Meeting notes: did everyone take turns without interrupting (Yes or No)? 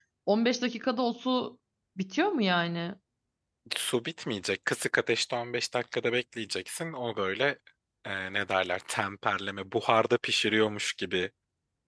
Yes